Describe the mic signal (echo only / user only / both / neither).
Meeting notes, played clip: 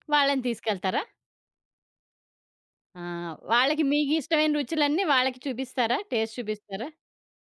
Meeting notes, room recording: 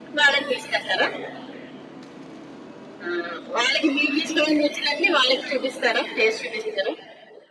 echo only